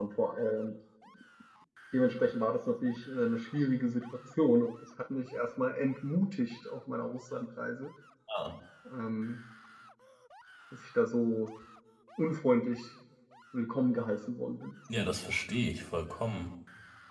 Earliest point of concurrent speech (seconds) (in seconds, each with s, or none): none